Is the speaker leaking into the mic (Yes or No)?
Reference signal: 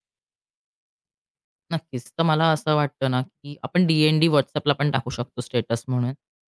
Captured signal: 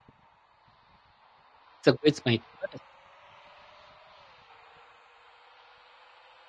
No